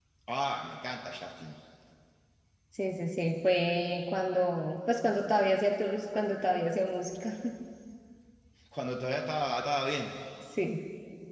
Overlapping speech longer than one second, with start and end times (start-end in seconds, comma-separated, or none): none